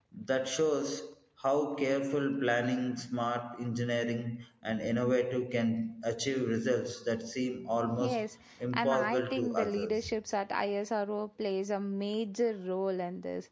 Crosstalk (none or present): present